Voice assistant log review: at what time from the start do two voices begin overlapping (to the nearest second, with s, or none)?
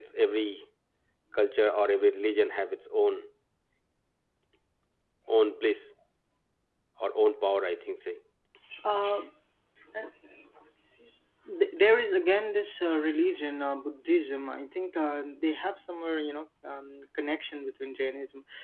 none